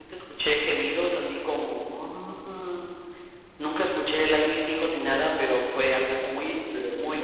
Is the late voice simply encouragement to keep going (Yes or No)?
No